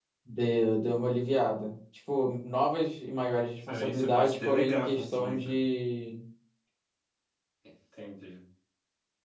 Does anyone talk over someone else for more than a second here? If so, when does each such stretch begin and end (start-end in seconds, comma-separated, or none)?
3.7-5.4